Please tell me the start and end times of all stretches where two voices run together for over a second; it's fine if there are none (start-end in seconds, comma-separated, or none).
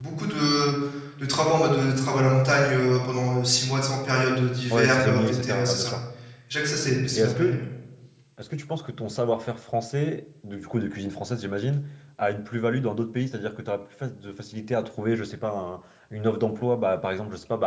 4.7-6.0